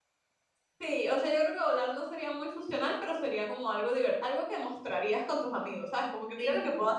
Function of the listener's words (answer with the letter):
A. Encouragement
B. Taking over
B